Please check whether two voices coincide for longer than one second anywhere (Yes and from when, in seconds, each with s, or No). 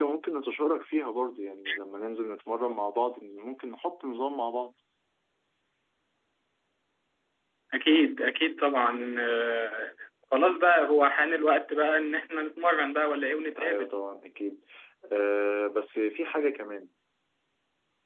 No